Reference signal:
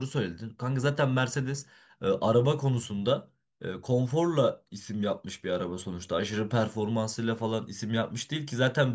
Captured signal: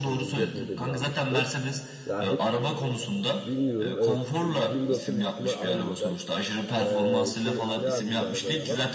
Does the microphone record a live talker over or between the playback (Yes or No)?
Yes